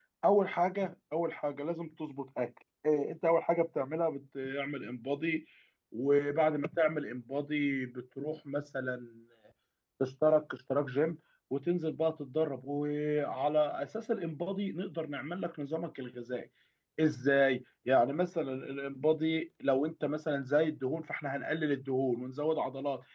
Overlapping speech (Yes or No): No